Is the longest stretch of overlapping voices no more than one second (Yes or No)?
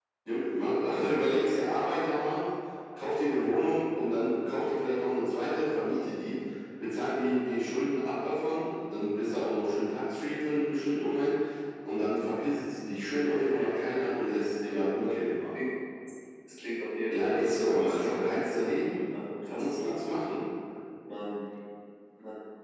No